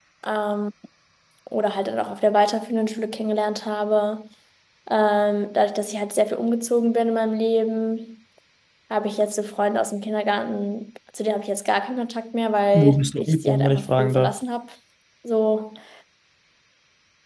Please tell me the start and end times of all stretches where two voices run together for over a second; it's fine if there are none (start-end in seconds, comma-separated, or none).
12.7-14.3